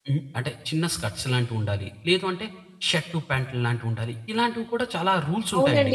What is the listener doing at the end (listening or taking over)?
taking over